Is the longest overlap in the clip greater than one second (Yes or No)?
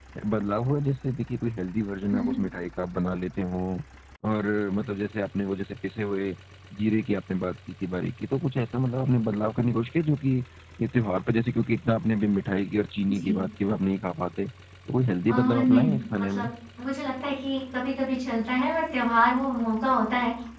Yes